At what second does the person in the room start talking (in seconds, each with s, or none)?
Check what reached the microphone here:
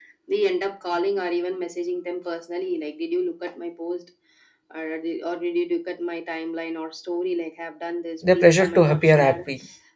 8.2 s